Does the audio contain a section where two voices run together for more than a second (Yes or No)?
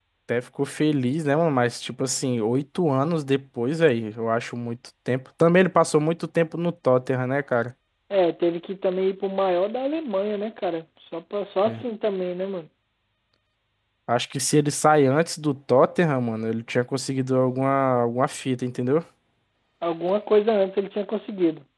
No